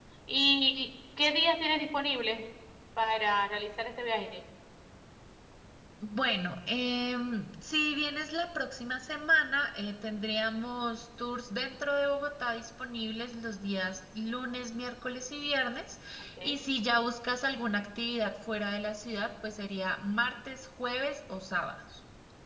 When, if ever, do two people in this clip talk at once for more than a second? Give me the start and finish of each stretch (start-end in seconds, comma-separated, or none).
none